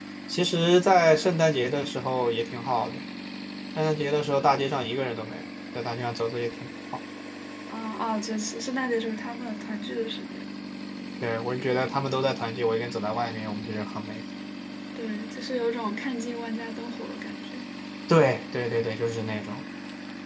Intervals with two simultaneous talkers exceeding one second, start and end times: none

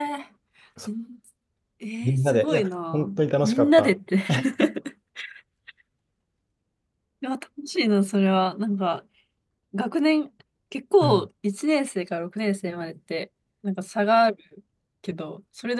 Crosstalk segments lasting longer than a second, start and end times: 2.0-3.9

